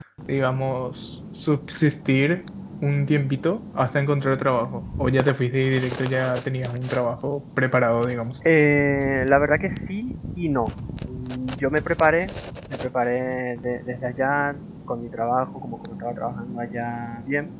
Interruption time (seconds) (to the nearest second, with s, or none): none